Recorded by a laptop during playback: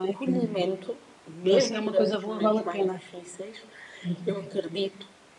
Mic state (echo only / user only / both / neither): echo only